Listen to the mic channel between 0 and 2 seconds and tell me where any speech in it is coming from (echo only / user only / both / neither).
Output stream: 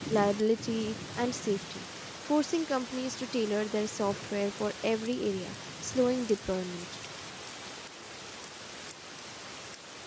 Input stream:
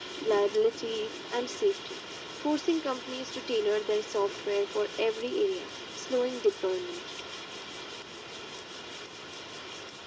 echo only